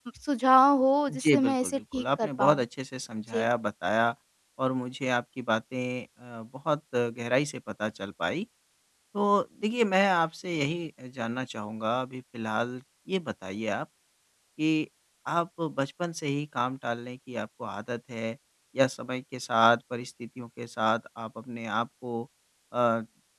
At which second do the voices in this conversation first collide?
1.1 s

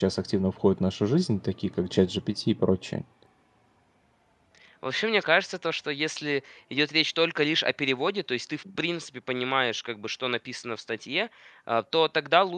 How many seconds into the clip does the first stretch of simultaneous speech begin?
none

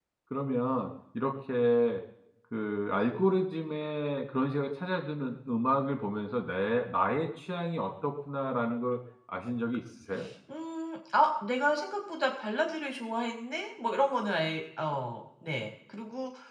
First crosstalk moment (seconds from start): none

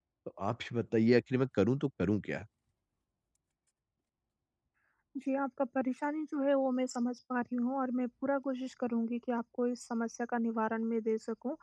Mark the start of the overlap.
none

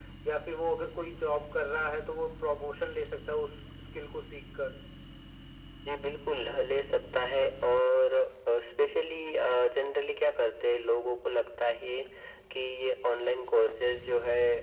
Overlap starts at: none

